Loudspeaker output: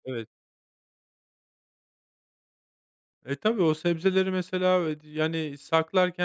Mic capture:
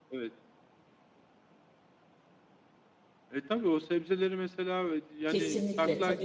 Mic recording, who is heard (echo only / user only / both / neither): both